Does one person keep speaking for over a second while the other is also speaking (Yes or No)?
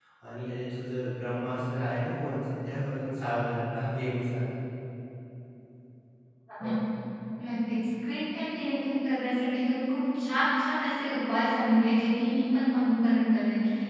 No